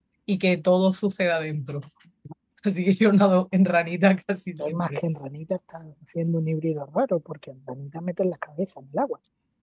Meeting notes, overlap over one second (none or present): none